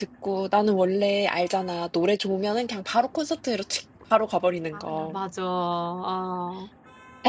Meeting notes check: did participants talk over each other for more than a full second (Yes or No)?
No